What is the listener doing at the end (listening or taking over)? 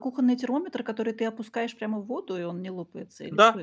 taking over